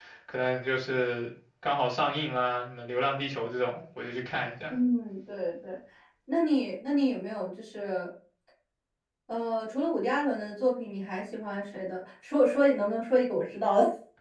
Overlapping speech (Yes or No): No